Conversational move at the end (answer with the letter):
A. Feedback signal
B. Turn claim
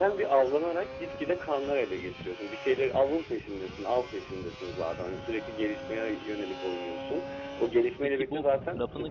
B